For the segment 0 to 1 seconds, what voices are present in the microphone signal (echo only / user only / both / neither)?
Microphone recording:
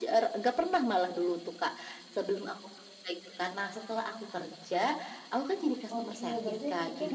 echo only